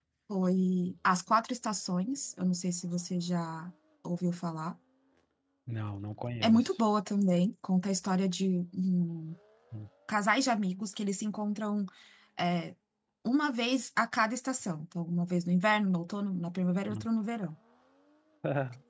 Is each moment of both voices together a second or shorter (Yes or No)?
Yes